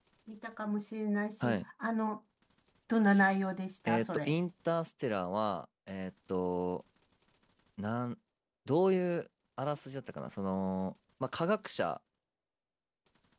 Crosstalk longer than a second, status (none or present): none